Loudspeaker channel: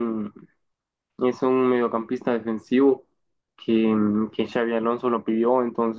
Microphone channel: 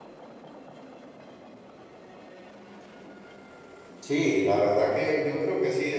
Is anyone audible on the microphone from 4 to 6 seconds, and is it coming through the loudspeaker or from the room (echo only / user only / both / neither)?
user only